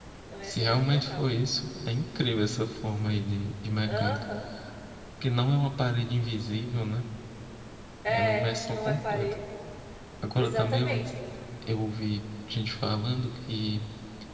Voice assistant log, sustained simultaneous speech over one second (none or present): present